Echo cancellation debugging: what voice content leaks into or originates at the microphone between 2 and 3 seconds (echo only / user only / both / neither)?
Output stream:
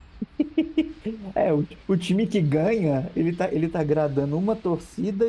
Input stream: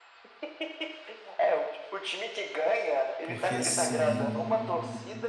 echo only